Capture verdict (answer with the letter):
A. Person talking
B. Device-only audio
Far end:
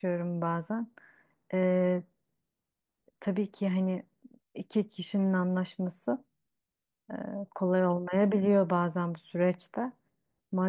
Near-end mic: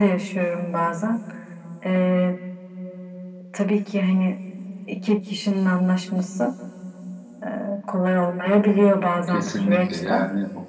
A